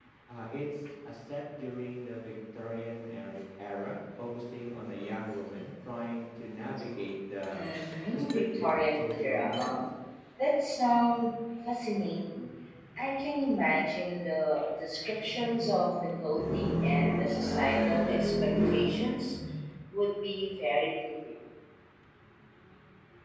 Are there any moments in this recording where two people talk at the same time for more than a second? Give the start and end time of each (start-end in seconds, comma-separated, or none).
8.1-9.8